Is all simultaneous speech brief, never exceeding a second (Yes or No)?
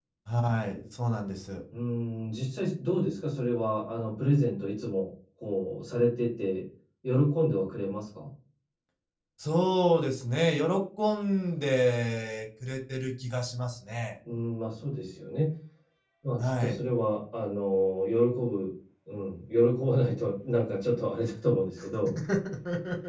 Yes